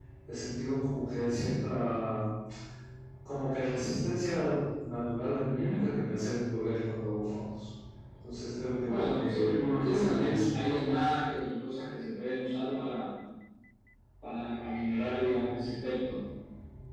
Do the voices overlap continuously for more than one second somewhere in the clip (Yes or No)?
Yes